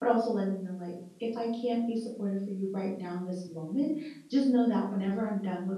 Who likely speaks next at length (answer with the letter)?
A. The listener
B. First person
B